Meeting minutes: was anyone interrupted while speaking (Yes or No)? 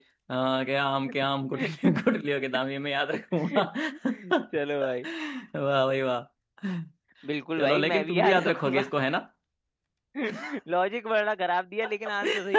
Yes